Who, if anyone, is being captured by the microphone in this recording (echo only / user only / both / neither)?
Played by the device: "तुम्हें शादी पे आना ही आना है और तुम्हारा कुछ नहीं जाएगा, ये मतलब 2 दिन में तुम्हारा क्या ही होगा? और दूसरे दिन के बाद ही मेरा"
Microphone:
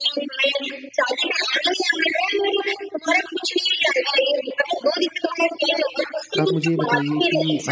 both